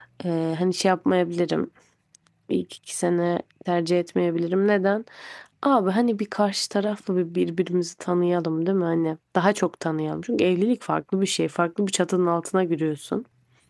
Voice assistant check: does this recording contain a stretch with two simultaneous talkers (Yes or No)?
No